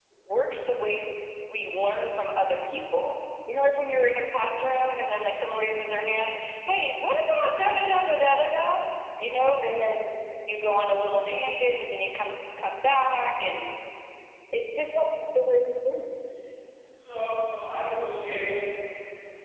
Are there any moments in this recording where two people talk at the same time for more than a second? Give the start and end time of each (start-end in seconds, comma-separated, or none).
none